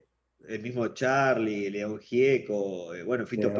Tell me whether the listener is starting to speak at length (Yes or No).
No